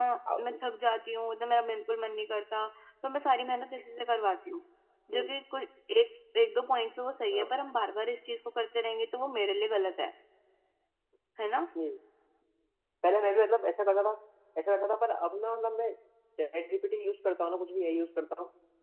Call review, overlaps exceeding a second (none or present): none